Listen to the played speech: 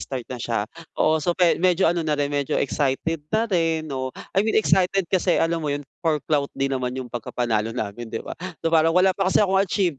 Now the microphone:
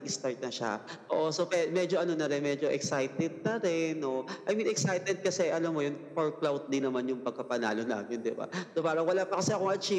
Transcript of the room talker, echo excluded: none

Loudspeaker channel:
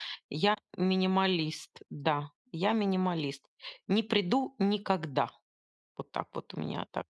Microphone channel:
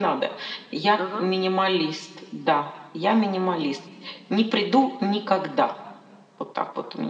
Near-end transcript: Ага.

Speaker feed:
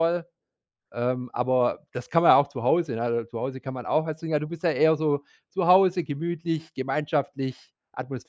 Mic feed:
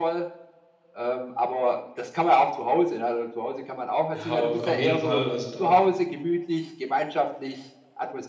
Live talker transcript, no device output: Ja, auf auf jeden Fall, also da

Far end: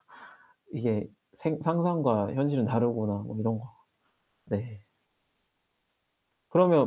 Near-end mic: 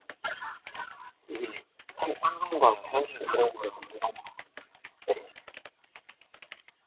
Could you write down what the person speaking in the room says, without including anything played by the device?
none

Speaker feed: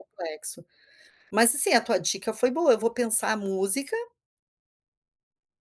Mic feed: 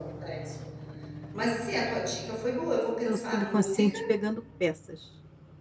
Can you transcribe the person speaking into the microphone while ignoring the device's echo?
seu subconsciente pegando peças.

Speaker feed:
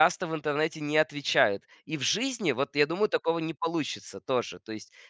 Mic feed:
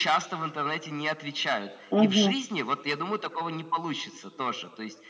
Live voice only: Мгм.

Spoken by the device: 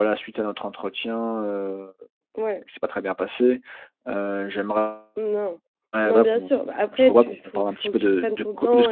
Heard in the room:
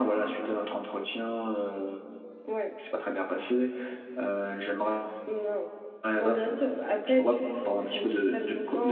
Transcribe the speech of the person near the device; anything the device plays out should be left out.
none

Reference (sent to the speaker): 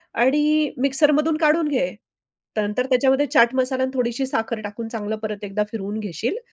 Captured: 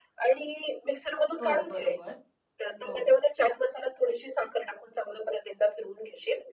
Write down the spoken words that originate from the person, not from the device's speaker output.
हो, बरोबर हो.

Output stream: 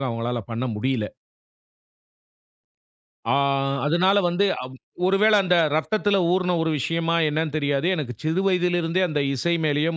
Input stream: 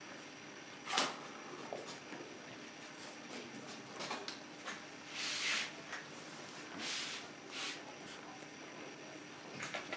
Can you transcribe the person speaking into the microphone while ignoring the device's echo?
none

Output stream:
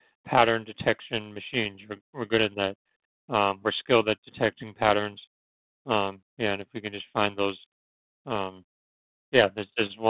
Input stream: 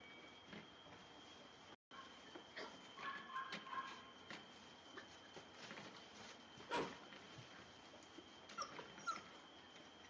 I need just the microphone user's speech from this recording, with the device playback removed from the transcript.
none

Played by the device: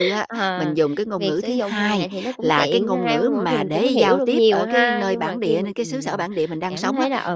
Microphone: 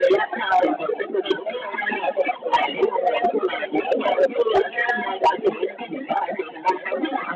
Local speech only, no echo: none

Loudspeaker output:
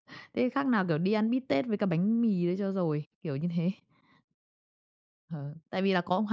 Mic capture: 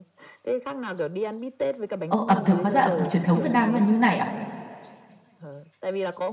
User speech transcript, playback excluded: "Ơ, ẩm thực hóa ra ẩm thực truyền thống Việt Nam nó là như thế này à?"

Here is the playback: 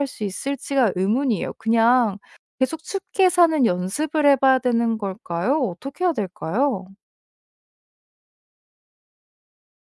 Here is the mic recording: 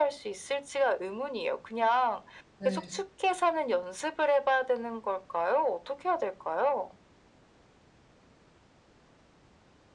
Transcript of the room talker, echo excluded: 네.

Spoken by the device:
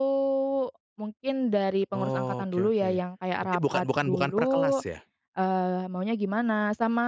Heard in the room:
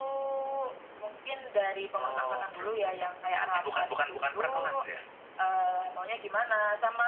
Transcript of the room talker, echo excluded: none

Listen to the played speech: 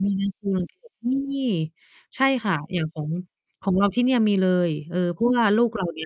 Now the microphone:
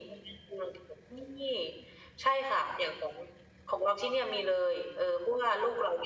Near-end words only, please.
none

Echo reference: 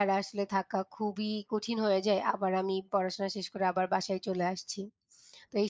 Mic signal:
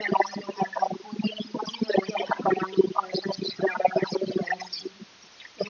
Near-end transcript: none

